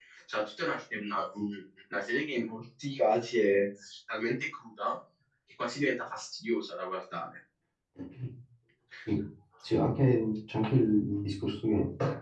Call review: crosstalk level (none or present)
none